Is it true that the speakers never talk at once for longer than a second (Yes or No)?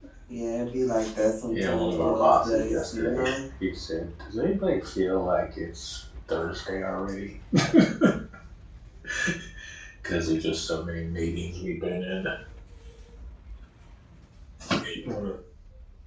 No